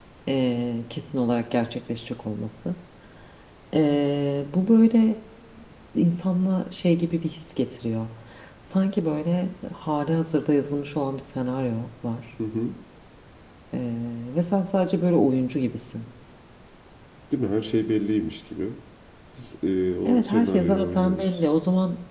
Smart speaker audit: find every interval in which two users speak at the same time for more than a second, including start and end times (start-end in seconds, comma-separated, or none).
20.1-21.3